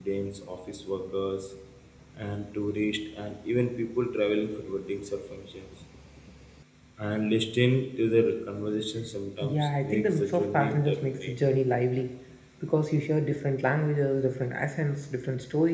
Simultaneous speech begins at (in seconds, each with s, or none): 9.4 s